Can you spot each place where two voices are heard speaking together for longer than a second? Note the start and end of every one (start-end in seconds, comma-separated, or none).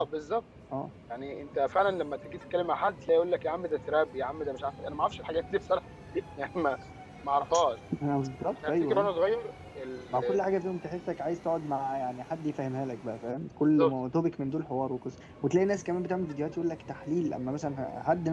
none